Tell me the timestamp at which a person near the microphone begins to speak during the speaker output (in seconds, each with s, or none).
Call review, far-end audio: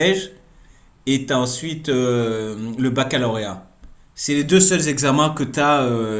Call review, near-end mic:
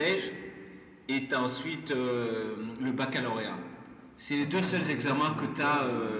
4.4 s